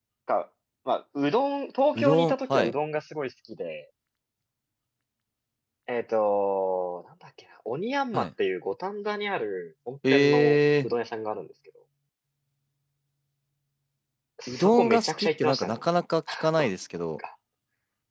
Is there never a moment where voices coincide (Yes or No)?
No